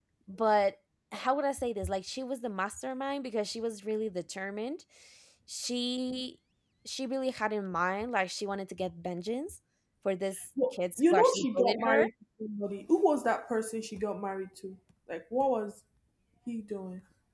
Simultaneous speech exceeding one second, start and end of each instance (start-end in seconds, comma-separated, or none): 10.7-12.1